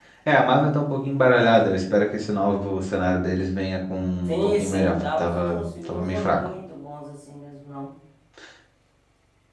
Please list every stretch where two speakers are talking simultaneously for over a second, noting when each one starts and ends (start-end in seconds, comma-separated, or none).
4.3-6.4